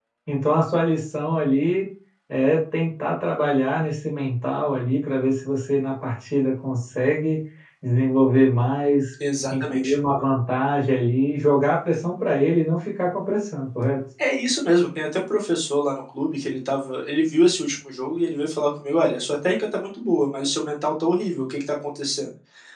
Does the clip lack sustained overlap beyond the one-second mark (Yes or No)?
Yes